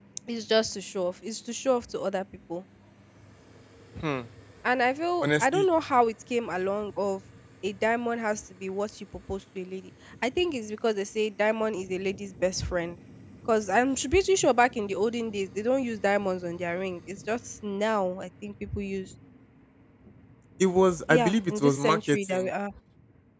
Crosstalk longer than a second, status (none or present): present